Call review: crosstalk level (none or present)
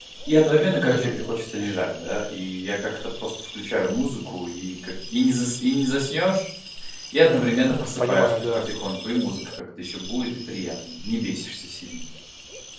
present